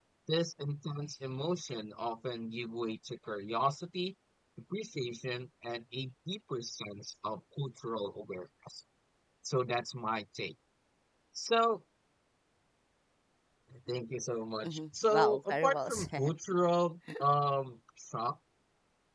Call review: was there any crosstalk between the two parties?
Yes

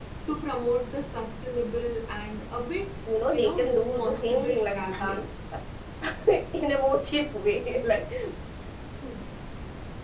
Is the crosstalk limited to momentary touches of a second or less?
No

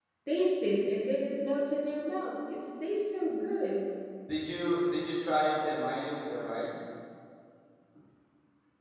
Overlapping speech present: No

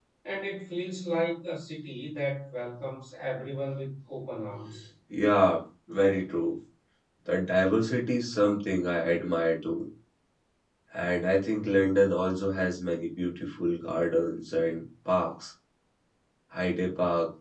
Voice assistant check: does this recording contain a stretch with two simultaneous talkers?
No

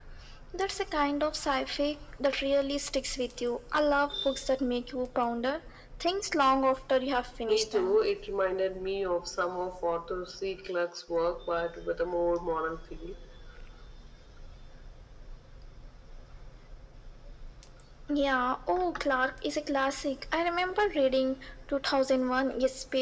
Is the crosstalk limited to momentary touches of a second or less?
Yes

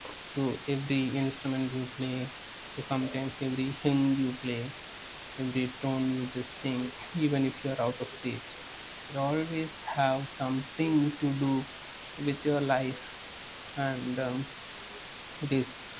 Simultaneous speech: No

